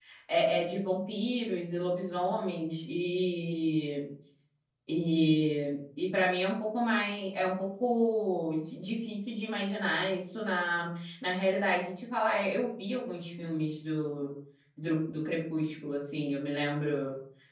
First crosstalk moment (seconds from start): none

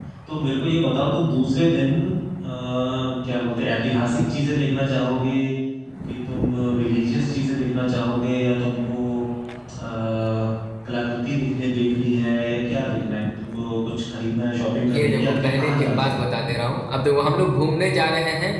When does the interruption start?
14.8 s

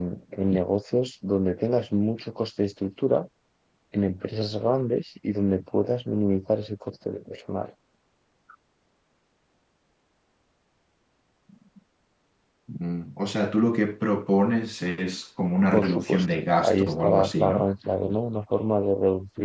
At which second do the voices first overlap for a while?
15.7 s

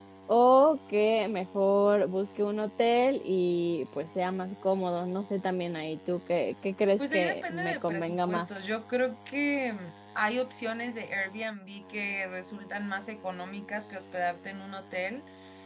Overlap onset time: 7.0 s

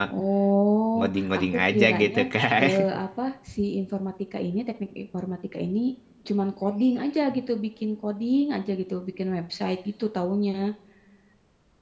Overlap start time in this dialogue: 0.9 s

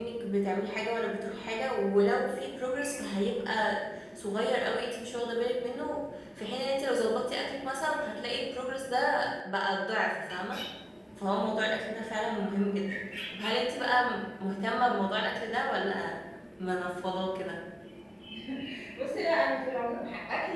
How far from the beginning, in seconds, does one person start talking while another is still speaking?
none

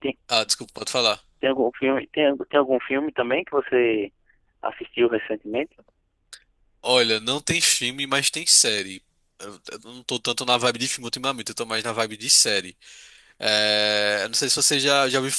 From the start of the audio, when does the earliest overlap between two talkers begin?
none

